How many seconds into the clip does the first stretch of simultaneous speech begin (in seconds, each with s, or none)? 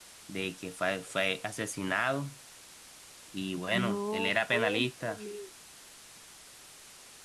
3.7 s